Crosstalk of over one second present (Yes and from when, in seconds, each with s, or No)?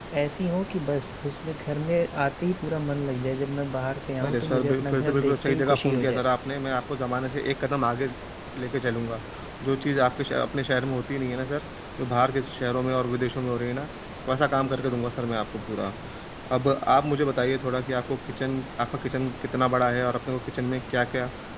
Yes, from 4.2 s